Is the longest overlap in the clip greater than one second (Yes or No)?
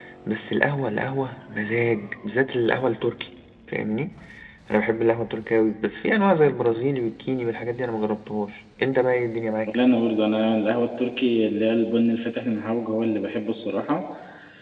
No